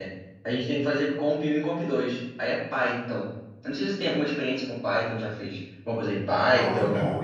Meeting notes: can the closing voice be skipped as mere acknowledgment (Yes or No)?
No